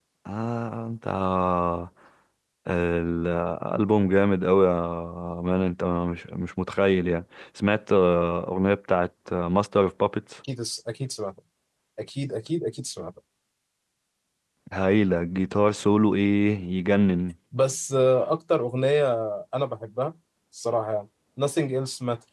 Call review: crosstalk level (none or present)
none